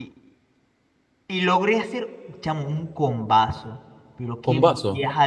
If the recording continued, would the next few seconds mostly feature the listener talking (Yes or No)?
No